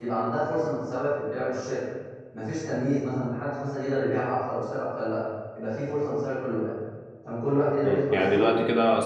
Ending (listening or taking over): taking over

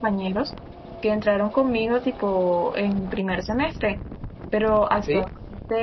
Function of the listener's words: listening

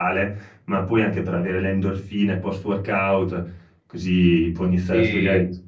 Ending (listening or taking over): listening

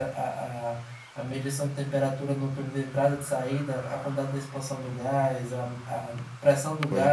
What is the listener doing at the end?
listening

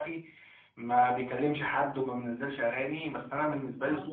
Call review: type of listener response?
taking over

